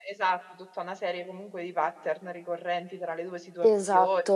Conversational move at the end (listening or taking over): listening